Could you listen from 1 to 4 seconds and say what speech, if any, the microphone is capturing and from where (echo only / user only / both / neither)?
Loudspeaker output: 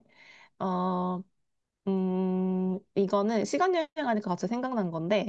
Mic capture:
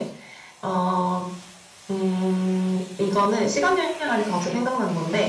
echo only